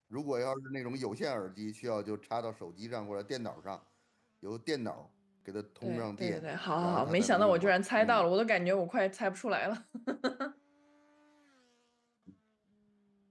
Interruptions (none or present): present